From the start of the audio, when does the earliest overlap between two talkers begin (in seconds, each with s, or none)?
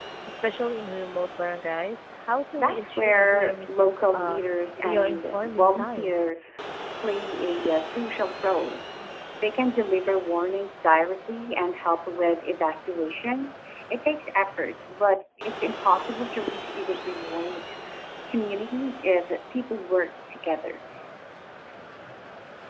2.6 s